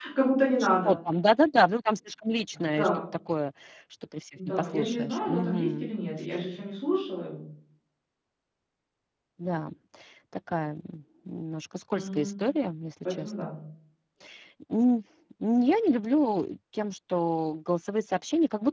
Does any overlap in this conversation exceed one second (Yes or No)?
Yes